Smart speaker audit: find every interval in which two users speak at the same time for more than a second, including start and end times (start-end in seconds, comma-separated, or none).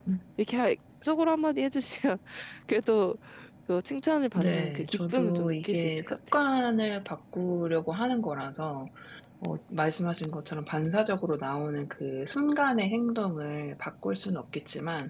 4.3-6.4